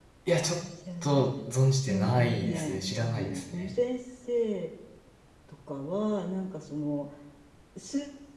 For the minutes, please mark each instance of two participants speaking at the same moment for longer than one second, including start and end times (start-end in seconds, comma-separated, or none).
1.9-3.7